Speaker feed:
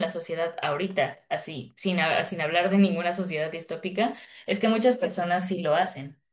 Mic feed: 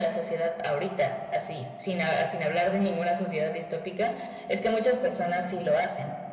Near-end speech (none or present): none